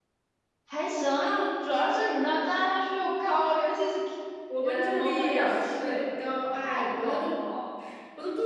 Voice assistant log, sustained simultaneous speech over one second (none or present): present